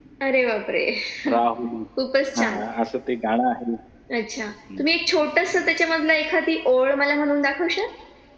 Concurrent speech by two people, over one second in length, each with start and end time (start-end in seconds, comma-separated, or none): none